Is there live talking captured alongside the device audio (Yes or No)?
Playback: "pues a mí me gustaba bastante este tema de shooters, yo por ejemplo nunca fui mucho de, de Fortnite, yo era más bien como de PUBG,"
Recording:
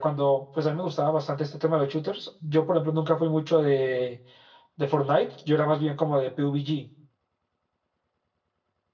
No